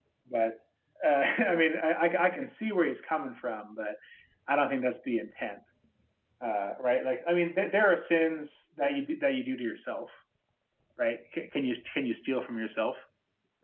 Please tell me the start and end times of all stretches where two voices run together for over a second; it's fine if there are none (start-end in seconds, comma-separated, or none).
none